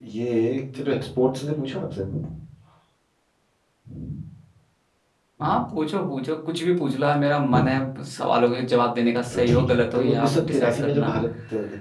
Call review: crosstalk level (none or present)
present